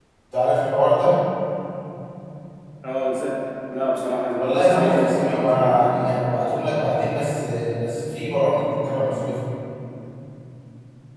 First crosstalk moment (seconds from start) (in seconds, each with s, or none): 4.4 s